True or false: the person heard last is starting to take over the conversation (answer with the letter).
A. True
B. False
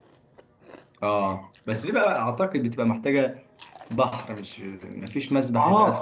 A